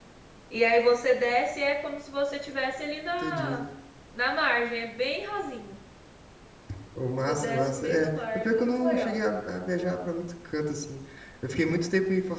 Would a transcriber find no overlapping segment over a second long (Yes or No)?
No